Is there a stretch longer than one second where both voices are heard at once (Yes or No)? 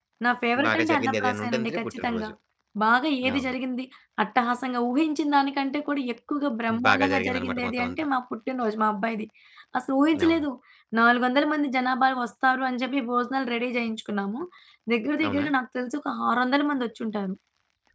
Yes